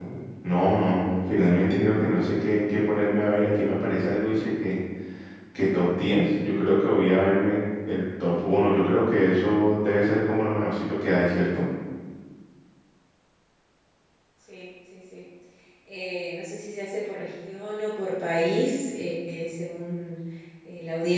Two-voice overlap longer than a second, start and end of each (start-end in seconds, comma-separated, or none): none